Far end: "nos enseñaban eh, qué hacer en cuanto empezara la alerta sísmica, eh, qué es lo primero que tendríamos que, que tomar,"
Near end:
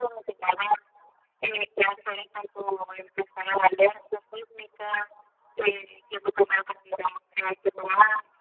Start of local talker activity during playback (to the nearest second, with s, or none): none